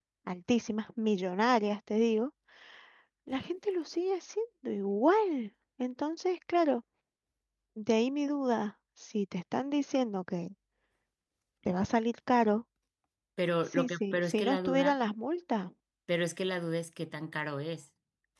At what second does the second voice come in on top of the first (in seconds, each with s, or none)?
13.7 s